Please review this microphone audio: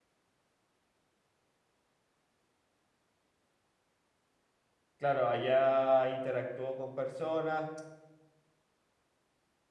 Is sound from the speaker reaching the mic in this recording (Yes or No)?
No